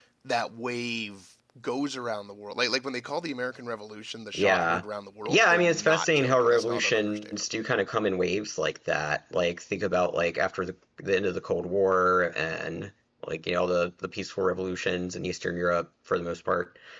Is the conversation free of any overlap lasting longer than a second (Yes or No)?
No